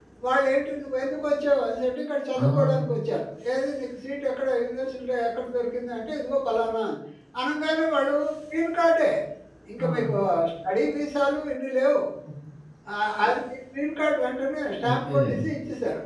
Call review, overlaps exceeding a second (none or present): none